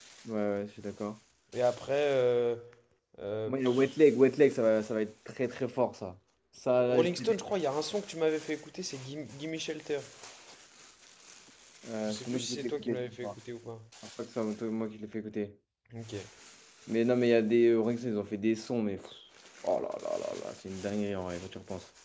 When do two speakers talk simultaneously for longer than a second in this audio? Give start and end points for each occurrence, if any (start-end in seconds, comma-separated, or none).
12.1-13.3